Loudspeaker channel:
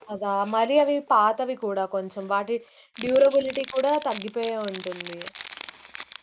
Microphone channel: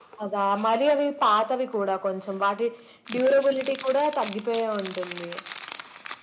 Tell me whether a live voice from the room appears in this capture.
No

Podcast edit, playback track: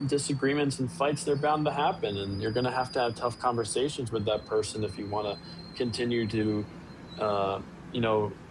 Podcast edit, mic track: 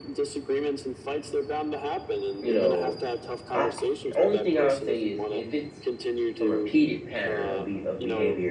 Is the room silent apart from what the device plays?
No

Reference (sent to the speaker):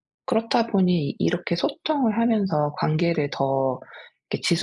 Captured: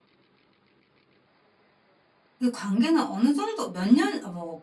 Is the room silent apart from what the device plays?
No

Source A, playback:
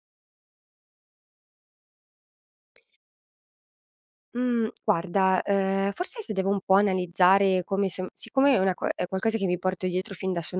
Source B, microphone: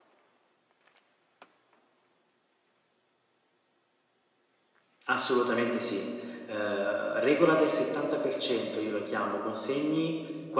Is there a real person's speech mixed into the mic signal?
Yes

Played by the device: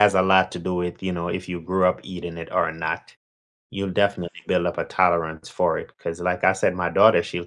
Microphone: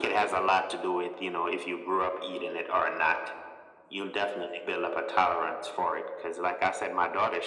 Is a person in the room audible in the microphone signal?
No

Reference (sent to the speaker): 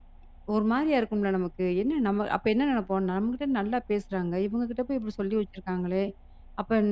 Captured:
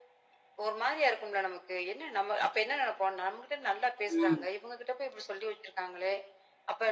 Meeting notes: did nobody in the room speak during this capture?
No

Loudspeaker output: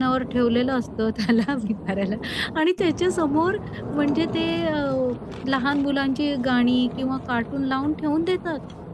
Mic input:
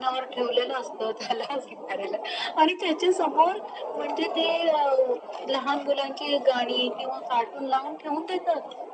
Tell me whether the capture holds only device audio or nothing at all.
Yes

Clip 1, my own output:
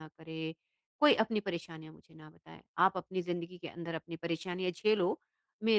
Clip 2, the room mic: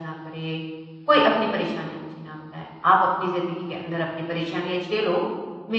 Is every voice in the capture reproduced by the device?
Yes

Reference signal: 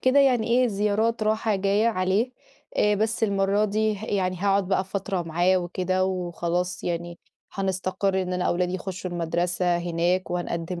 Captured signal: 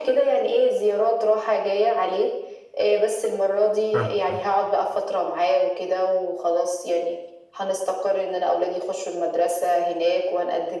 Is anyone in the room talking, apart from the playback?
Yes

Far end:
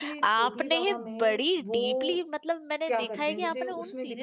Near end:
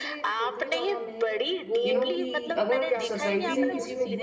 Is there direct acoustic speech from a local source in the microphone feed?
Yes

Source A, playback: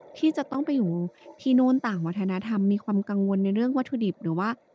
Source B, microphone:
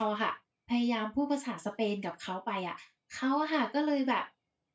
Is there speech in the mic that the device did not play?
Yes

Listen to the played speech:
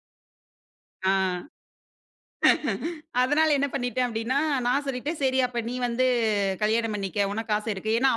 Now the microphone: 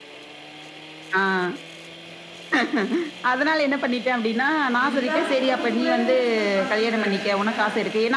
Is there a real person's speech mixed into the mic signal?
Yes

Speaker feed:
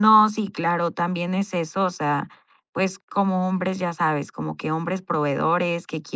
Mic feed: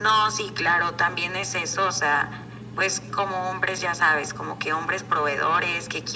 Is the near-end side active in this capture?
No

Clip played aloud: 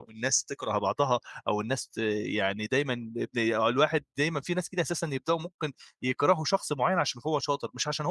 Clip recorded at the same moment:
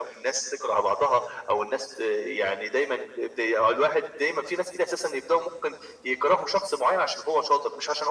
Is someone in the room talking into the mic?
No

